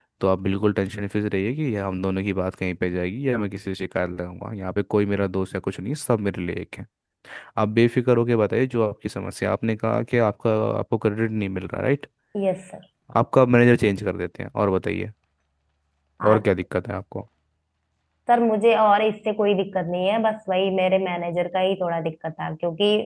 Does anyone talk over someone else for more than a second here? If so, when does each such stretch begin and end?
none

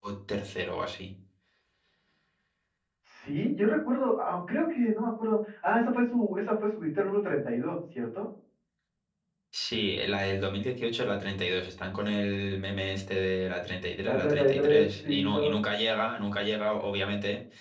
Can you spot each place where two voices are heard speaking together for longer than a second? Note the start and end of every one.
14.1-15.6

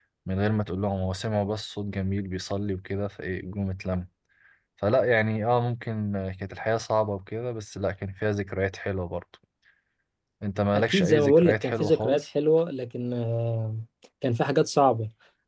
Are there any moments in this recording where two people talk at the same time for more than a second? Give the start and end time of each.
10.8-12.2

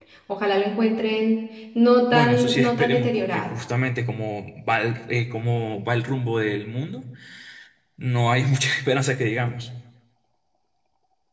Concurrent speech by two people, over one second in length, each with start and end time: 2.1-3.5

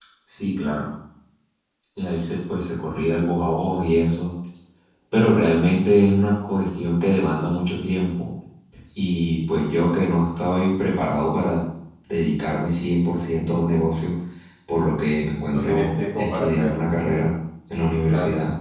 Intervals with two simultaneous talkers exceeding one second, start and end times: 15.5-16.7

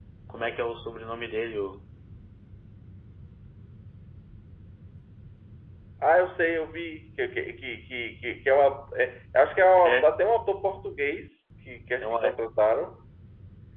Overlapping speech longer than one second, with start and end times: none

